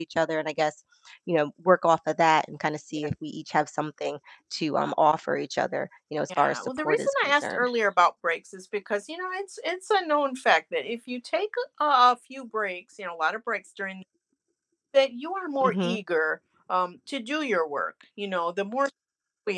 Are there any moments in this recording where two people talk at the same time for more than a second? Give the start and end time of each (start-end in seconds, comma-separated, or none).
6.4-7.7